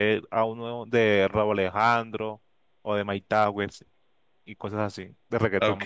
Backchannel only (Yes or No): No